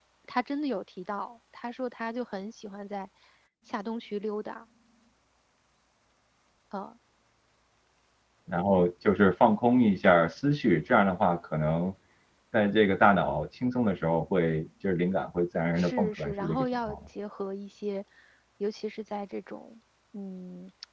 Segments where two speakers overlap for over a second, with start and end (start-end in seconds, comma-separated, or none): 15.8-17.1